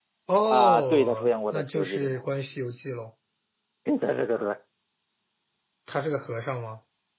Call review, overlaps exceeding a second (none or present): present